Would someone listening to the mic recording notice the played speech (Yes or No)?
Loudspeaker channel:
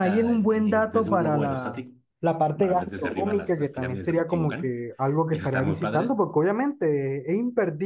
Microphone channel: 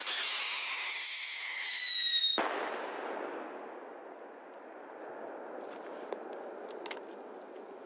No